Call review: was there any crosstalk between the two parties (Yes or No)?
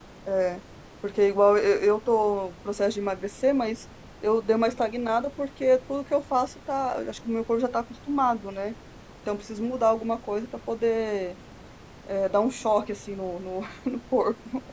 No